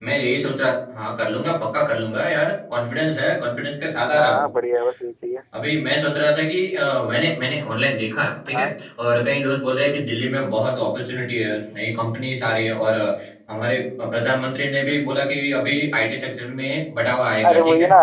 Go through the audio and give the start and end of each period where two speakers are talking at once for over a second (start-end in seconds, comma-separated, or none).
none